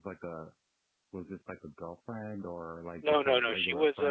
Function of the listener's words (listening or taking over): taking over